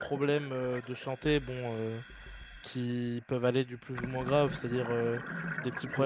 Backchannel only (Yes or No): Yes